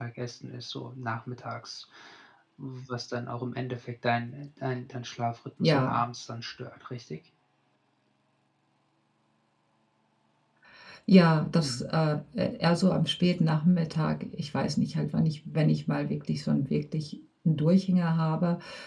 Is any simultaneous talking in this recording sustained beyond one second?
No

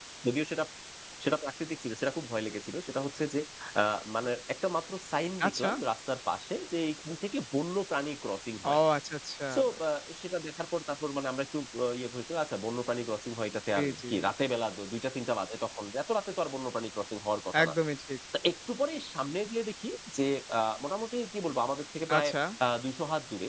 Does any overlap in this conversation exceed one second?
No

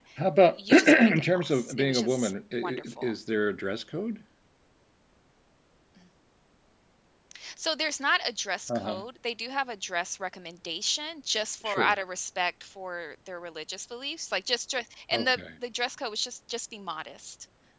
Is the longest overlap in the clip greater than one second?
Yes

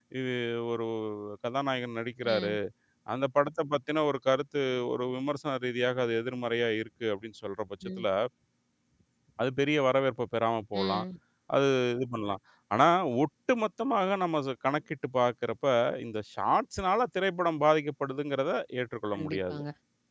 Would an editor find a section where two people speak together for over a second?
No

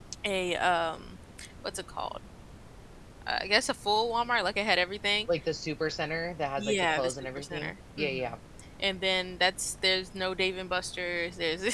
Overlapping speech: Yes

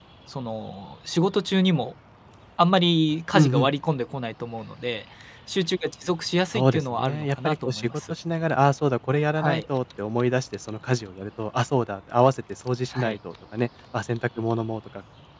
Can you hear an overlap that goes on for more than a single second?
Yes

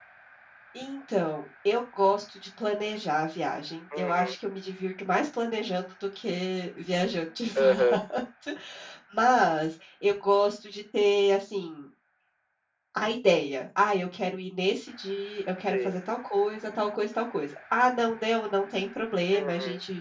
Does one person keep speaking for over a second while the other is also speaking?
No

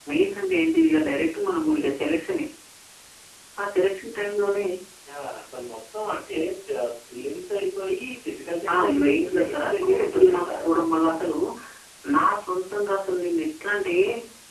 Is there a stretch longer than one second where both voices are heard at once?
Yes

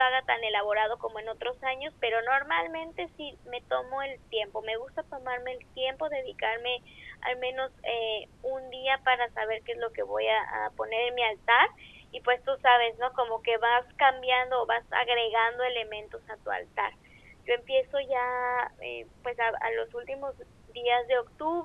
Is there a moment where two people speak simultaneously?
No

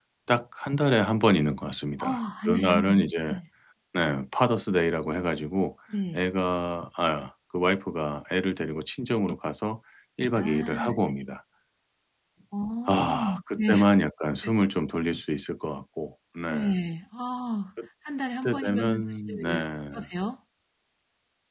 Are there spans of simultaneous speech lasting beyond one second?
Yes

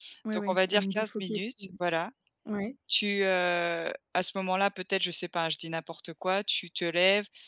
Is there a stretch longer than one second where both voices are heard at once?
Yes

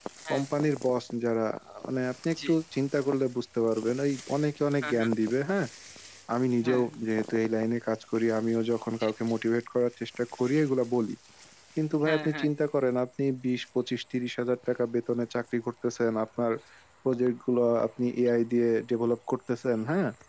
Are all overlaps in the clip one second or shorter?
Yes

